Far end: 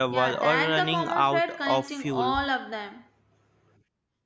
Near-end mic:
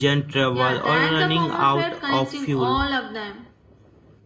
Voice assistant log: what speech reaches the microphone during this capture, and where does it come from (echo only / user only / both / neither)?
echo only